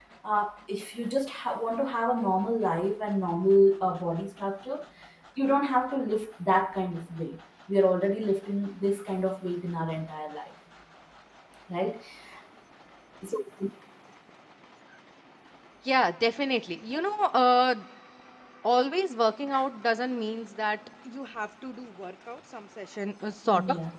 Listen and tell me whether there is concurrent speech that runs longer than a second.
No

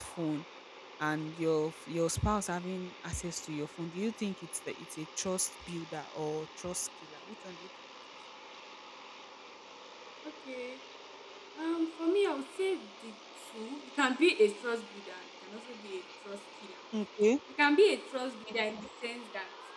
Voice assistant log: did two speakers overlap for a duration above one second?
No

